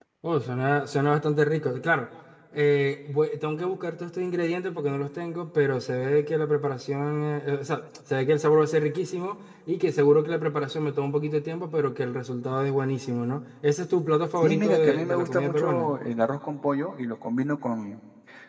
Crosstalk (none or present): present